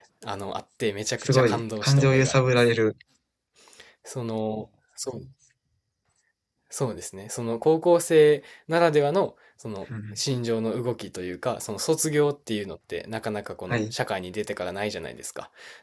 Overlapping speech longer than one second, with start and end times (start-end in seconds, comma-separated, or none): 1.2-2.7